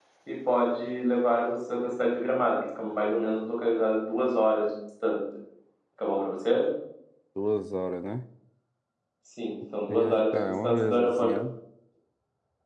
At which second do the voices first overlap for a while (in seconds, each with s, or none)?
9.8 s